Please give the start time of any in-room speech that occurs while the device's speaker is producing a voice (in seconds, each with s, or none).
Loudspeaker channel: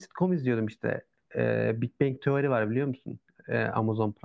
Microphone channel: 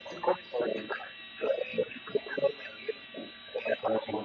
none